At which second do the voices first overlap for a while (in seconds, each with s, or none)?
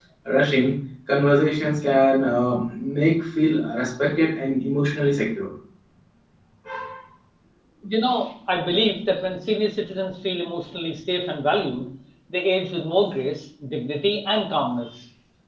none